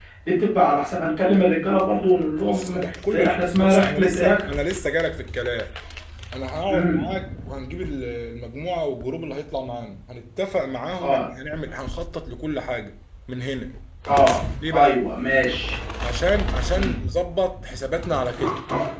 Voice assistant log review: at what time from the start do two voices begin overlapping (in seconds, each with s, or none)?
2.4 s